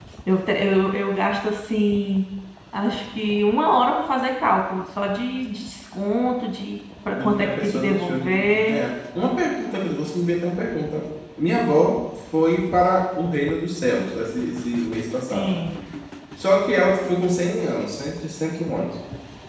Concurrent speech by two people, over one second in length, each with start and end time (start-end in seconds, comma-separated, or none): 7.1-8.8